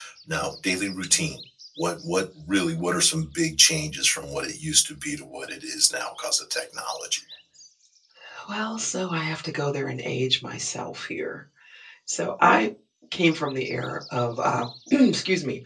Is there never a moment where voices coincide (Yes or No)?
Yes